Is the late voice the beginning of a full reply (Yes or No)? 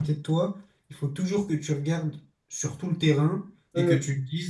No